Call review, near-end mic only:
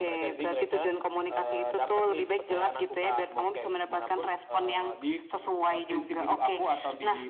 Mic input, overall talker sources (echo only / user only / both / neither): echo only